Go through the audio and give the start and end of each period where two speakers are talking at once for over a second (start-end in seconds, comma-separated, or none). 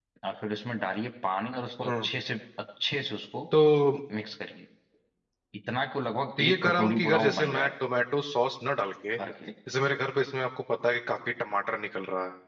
6.4-7.7